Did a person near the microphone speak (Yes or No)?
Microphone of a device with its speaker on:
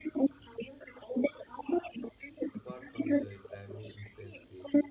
Yes